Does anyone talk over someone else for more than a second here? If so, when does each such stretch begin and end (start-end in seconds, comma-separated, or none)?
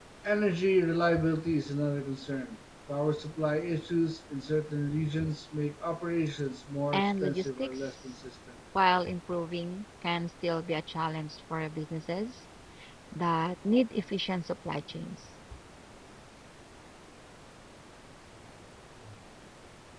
6.9-8.2